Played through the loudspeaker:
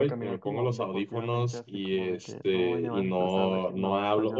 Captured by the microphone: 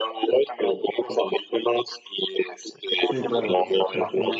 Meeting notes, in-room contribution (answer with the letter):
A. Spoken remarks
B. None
A